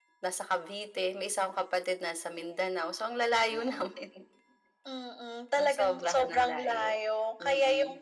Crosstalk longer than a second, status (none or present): present